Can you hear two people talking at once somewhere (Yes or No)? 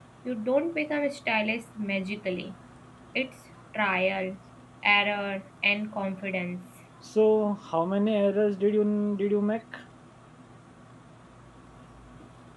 No